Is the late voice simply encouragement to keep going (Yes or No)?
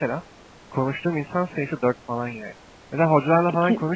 Yes